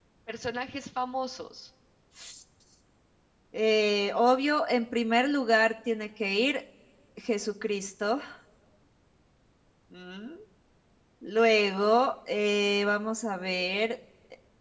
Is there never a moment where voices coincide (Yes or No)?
Yes